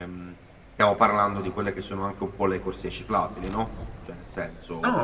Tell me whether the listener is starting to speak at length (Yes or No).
Yes